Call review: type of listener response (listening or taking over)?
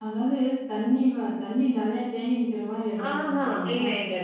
taking over